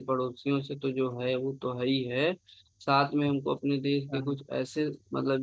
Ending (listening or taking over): listening